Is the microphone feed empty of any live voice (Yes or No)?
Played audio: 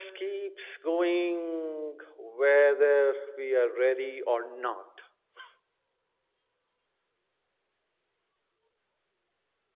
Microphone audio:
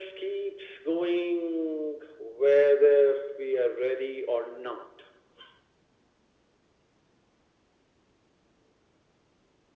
Yes